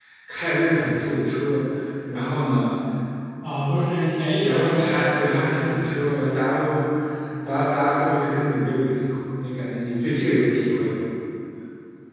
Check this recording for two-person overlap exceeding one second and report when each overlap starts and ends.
4.4-5.8

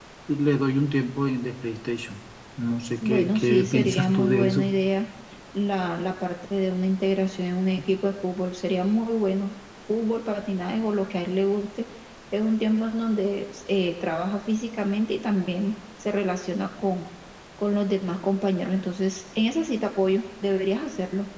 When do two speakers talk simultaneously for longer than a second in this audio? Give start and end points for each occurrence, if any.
3.0-4.7

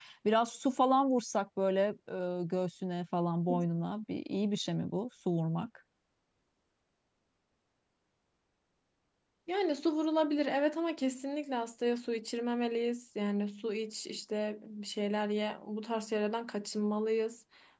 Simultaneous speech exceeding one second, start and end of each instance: none

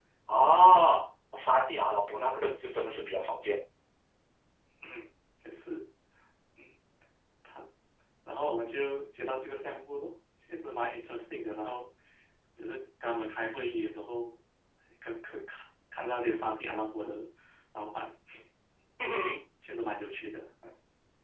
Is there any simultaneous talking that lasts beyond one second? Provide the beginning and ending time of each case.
none

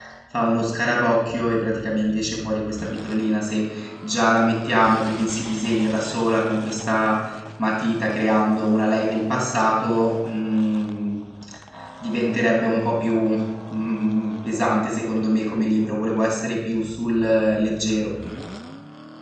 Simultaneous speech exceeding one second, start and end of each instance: none

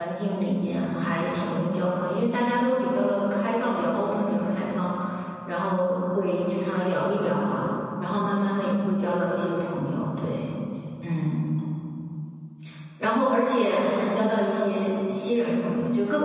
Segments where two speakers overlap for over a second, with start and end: none

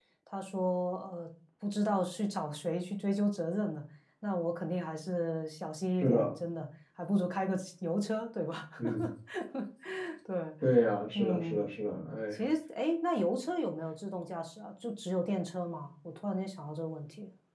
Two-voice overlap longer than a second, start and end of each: none

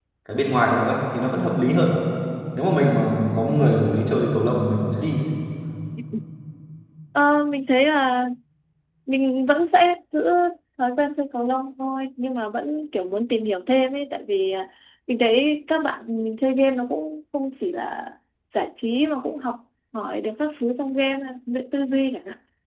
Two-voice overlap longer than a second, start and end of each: none

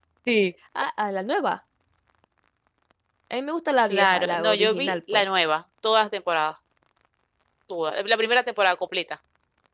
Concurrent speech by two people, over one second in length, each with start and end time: 3.9-5.2

